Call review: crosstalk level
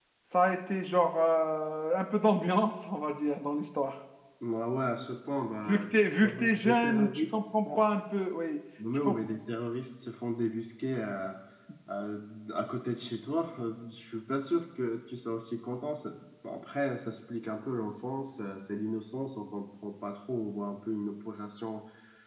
present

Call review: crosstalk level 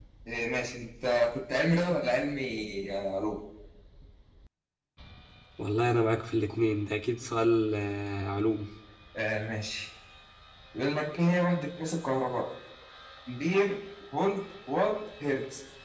none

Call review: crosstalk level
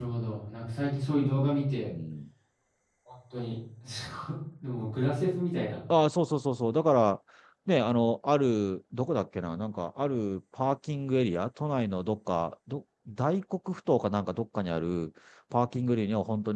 none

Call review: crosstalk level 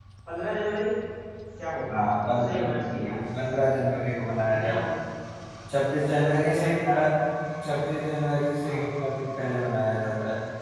present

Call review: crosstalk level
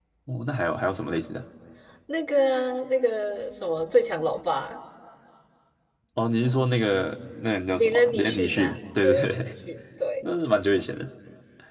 present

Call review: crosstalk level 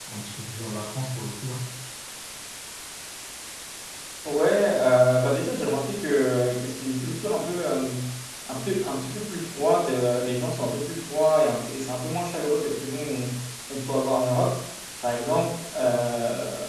none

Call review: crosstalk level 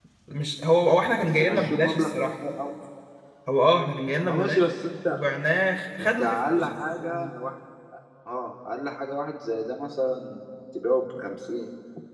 present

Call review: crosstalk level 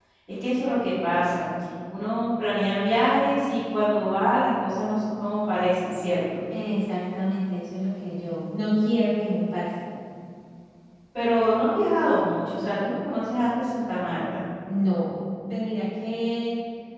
none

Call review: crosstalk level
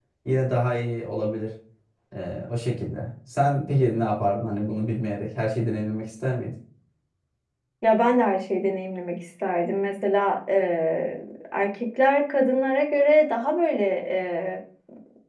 none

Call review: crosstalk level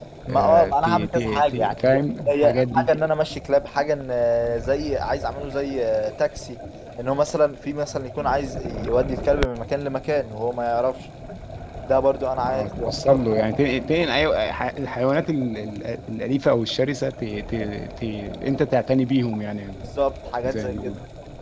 present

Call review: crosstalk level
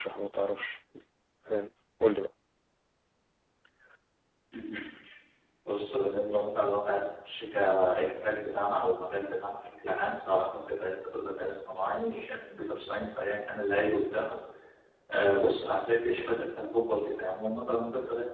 none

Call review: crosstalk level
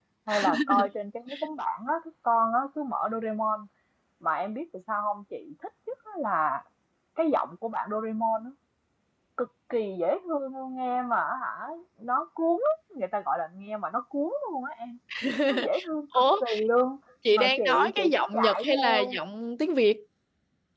present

